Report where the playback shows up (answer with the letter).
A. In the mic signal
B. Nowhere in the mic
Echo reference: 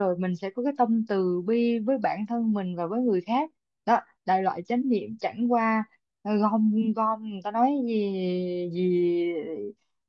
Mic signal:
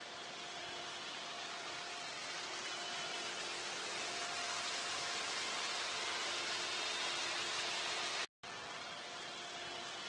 B